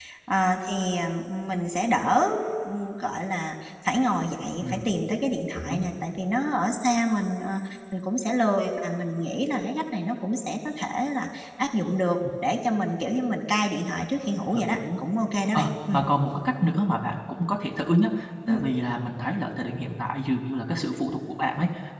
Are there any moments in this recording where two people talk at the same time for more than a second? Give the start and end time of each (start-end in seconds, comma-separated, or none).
none